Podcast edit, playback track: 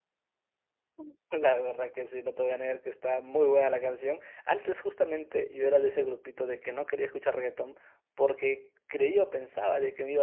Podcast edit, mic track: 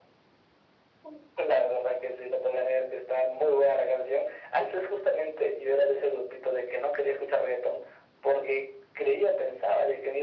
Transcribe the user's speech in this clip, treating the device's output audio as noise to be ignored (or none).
none